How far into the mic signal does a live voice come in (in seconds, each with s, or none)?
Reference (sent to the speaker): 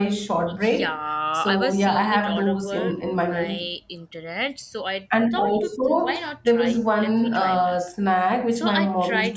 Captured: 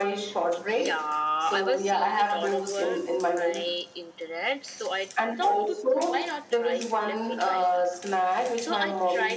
none